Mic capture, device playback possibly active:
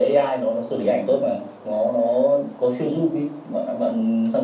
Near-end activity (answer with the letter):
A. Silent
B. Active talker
A